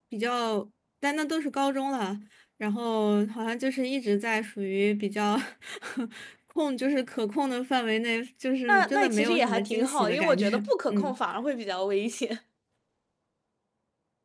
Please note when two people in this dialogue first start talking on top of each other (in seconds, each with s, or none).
8.7 s